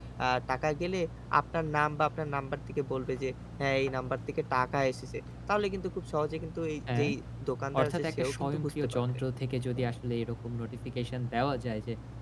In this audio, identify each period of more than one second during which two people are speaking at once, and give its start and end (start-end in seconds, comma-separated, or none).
7.8-9.0